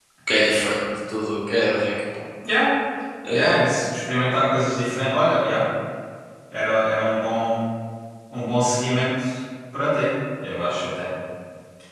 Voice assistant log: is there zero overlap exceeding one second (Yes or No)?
Yes